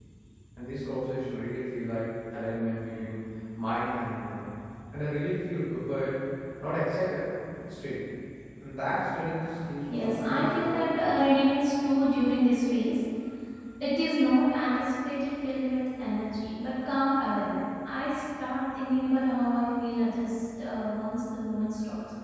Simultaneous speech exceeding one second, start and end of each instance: 9.9-11.2

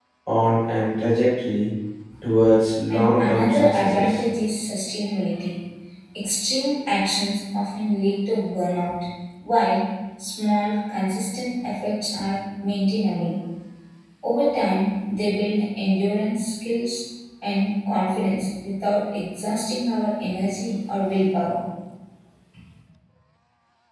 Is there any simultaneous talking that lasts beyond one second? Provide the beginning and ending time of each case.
2.9-4.2

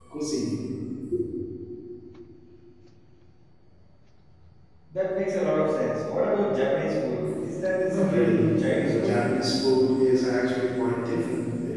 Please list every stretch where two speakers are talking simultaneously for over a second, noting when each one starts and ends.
7.8-9.2

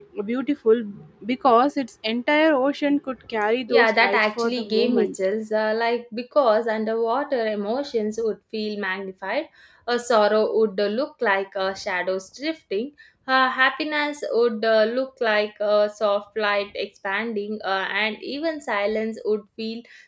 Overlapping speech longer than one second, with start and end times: 3.7-5.2

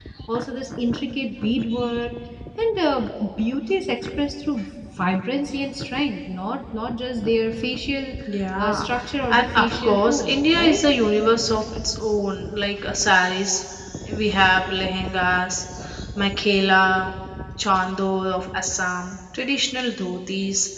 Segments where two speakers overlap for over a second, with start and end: 9.3-10.8

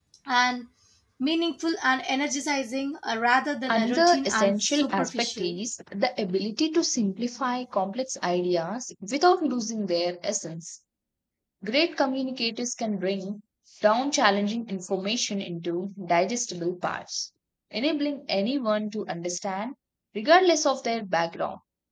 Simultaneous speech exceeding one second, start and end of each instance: 3.7-5.6

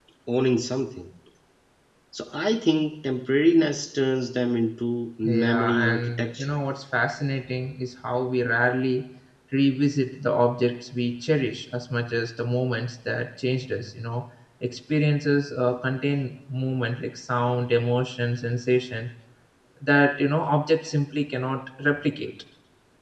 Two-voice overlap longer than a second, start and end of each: 5.2-6.5

